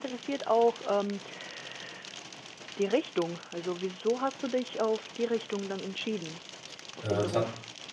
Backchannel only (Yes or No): No